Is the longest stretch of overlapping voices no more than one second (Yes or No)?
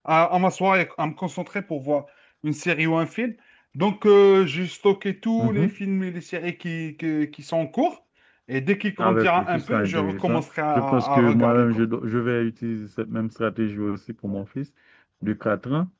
No